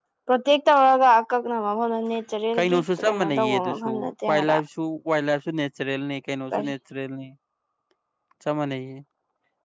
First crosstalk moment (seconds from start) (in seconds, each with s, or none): 2.5 s